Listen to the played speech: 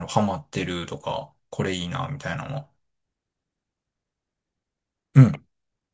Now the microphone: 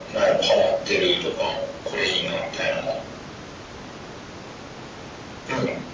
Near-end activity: none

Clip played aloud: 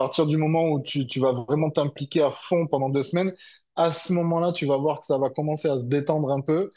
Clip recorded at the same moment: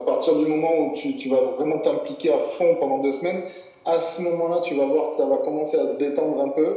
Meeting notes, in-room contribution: none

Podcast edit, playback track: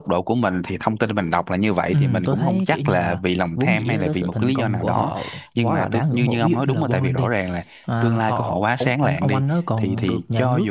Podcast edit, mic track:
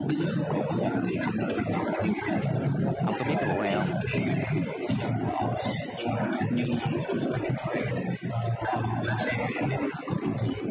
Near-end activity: present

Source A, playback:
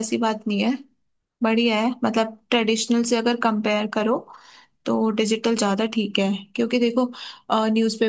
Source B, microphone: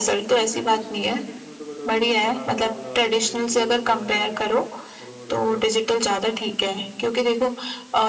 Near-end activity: present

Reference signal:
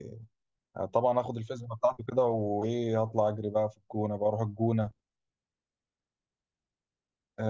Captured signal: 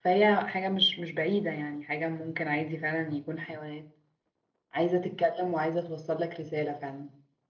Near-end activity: present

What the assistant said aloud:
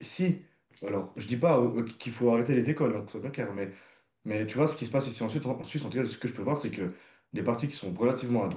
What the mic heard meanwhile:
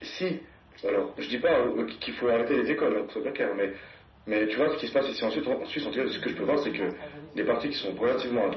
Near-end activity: present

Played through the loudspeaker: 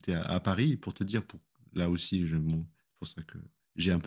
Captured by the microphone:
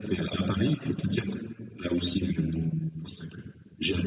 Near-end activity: none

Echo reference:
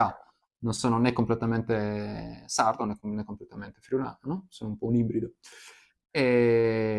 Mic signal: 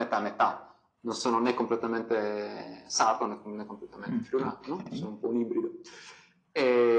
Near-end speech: present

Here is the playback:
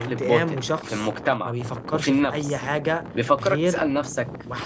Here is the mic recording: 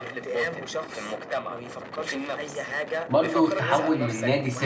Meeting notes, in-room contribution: present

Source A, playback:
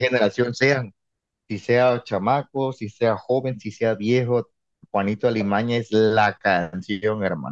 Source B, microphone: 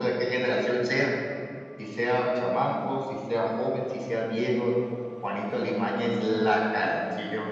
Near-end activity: none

